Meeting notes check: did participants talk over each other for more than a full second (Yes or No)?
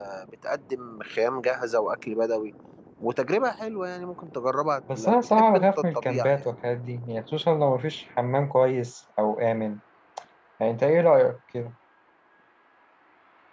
Yes